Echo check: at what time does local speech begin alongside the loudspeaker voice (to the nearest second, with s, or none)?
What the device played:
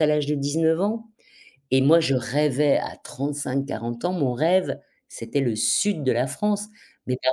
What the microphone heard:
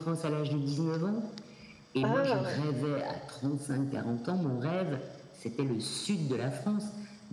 2 s